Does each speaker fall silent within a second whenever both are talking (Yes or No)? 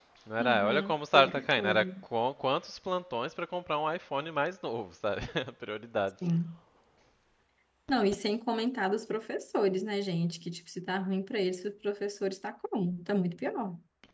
No